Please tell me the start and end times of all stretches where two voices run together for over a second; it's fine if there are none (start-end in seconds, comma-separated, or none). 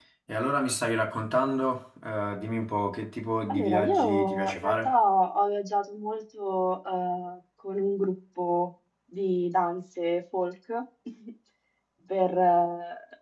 3.5-5.0